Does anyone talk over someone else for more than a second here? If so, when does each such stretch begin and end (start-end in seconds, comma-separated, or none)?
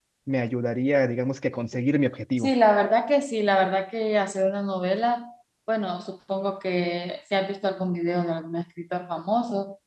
none